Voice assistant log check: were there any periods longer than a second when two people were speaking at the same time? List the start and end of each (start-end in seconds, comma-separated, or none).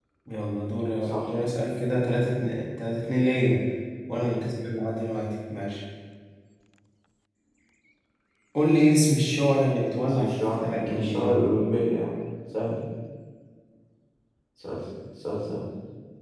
10.0-11.3